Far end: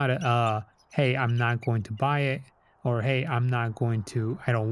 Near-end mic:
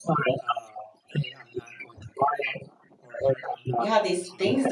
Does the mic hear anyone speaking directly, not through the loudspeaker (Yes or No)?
Yes